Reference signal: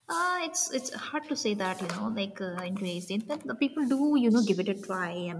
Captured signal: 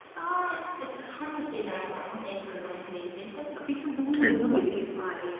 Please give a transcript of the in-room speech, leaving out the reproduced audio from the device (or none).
I don't know.